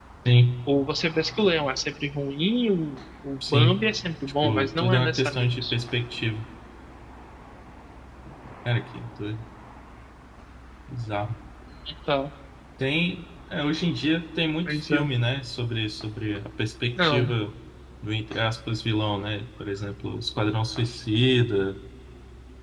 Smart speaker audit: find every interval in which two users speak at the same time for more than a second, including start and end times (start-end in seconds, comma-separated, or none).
4.4-5.7